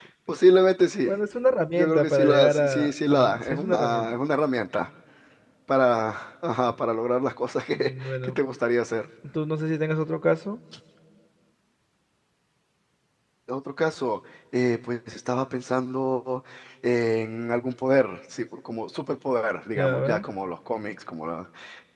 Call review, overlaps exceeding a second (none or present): present